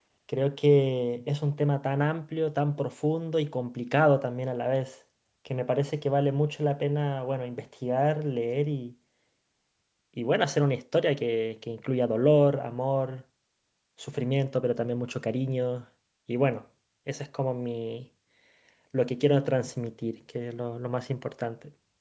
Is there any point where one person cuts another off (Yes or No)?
No